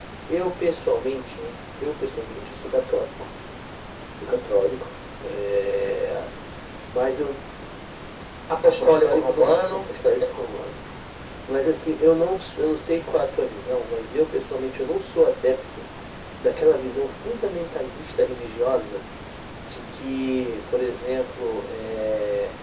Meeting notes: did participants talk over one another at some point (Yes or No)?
Yes